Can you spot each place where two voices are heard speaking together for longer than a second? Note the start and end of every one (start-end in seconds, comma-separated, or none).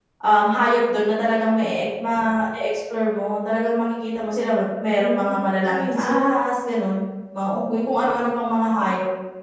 5.0-6.5